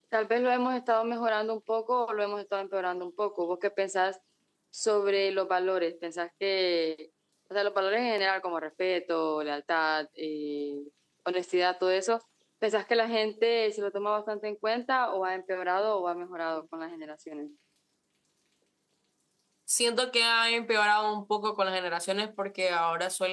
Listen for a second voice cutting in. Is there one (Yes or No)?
No